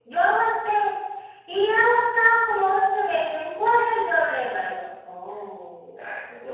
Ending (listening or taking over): taking over